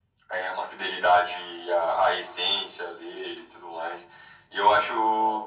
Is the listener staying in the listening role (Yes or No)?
Yes